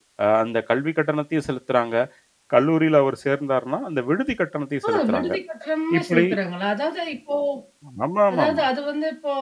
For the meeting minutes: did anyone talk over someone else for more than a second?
No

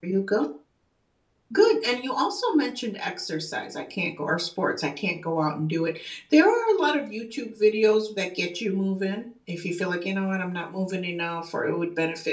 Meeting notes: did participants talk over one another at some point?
No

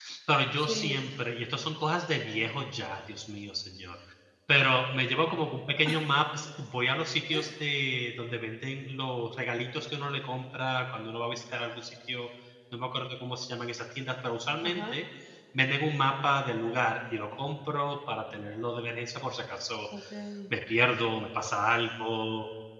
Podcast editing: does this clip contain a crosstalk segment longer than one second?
No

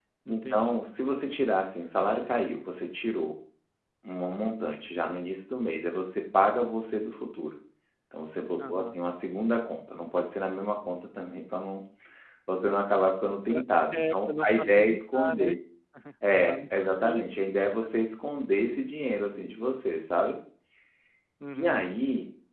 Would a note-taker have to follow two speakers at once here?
Yes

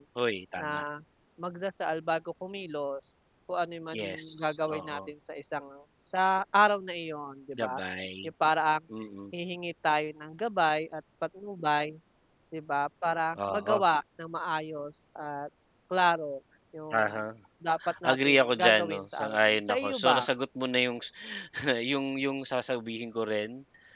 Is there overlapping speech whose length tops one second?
Yes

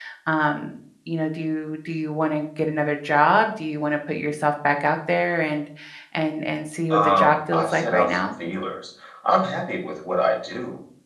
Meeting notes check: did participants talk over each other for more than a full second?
Yes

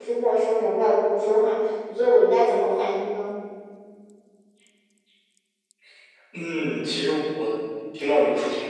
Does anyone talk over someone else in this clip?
No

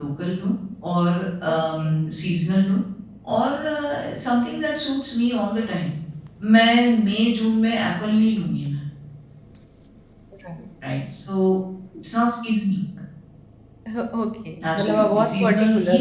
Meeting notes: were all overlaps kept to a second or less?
No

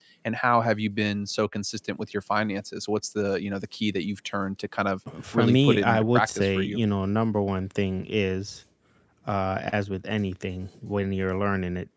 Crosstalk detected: Yes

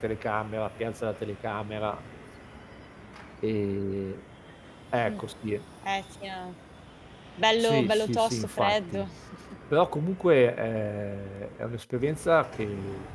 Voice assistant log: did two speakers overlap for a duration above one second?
Yes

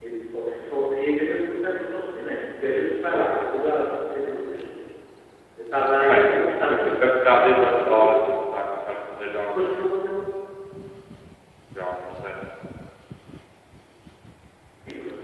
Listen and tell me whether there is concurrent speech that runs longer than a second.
Yes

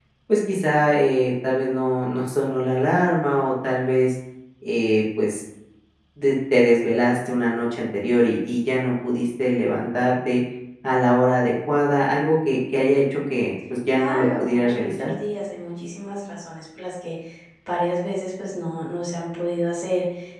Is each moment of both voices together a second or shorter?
No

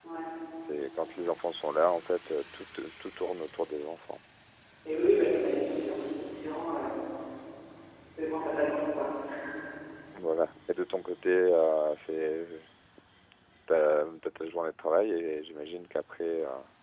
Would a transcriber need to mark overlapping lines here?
No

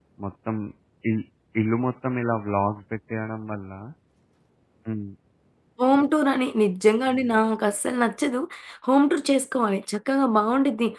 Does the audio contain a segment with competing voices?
No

